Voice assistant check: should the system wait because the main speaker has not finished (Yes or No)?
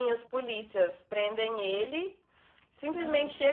Yes